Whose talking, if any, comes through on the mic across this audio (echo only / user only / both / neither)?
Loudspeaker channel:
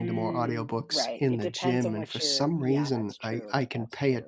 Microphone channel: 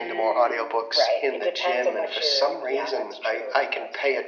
both